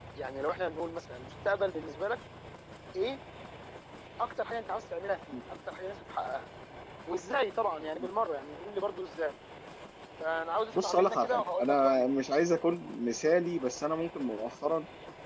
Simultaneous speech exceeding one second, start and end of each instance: 10.8-12.2

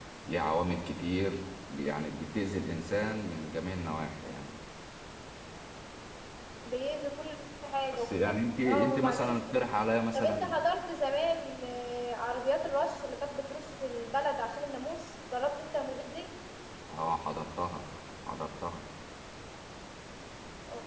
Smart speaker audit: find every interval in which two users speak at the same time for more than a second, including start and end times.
7.9-9.4

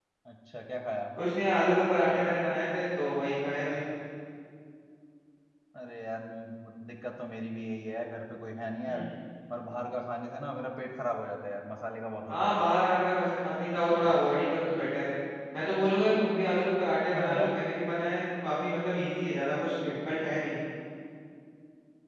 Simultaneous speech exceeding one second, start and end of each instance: none

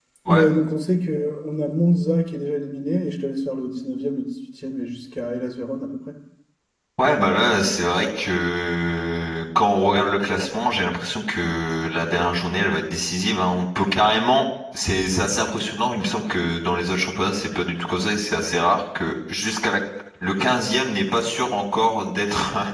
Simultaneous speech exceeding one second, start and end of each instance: none

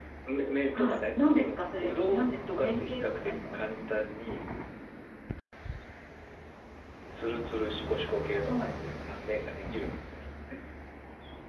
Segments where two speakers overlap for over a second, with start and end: 0.7-3.6

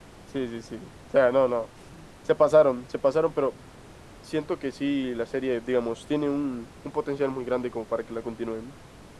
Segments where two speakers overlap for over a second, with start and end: none

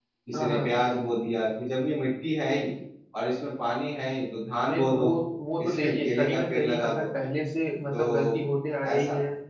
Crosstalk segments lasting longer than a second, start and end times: 5.6-7.1

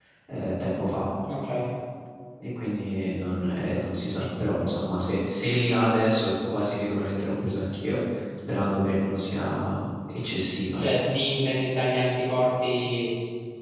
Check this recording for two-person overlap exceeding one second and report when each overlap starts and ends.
none

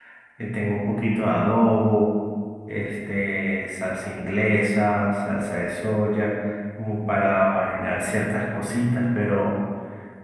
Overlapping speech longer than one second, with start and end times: none

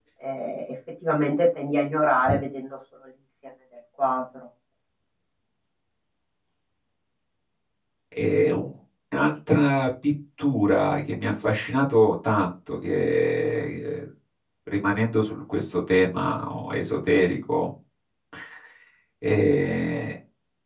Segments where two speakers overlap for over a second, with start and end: none

